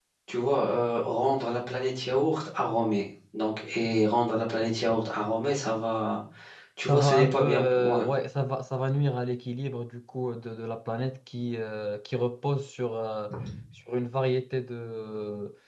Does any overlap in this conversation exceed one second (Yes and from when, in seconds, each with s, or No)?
Yes, from 6.8 s